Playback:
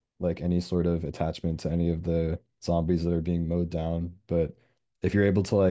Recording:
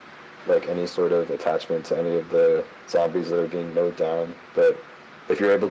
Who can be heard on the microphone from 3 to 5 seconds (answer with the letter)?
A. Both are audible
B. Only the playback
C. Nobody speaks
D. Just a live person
B